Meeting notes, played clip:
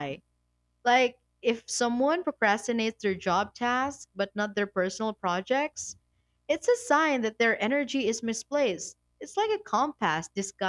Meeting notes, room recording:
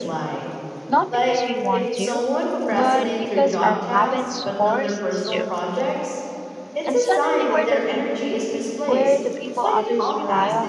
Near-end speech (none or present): present